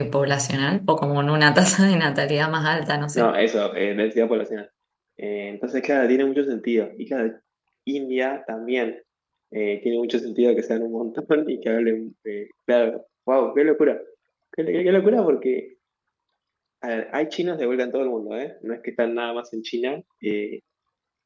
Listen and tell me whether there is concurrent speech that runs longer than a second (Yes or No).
No